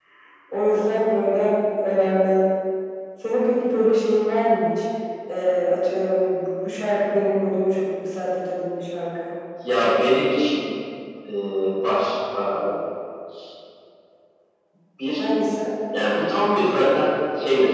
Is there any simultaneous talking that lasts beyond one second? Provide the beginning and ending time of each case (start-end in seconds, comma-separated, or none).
none